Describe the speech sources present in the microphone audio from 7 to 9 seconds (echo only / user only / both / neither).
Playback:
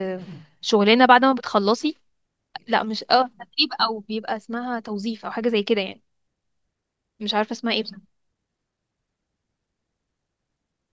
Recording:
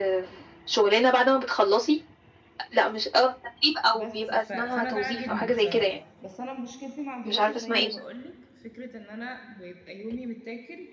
both